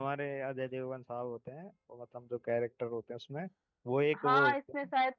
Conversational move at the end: taking over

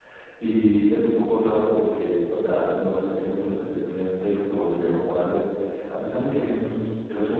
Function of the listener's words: listening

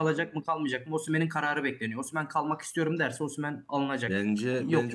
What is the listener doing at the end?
taking over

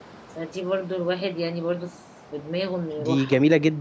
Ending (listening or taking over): taking over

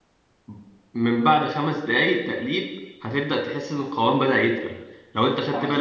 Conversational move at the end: listening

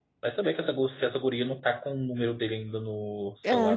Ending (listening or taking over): taking over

